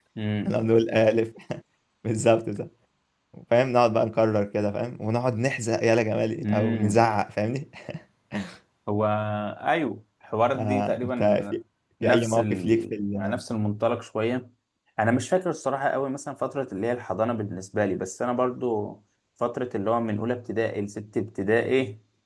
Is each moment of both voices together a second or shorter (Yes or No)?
No